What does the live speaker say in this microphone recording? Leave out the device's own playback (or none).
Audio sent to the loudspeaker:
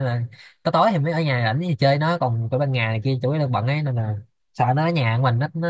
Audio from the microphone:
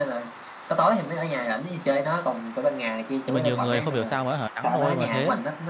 nhưng mà nhiều người không hiểu sao mà hở nắng nôi mà thế